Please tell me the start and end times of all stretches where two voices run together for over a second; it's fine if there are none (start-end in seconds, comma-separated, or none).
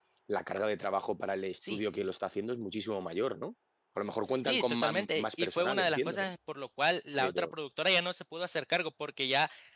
4.4-6.3